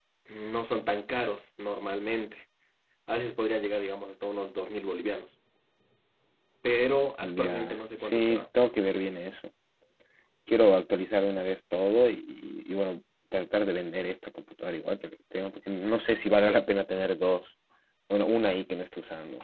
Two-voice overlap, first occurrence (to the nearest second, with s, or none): 7 s